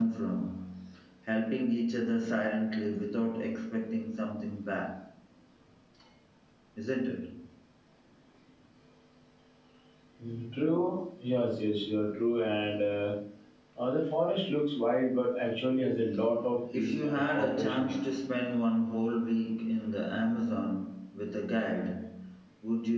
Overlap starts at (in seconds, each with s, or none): 16.7 s